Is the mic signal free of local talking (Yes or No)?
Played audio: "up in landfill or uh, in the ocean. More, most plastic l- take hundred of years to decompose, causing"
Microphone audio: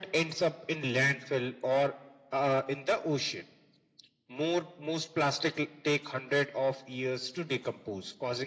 Yes